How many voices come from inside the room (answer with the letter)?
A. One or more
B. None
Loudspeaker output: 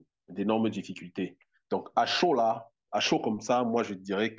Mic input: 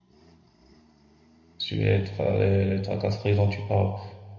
A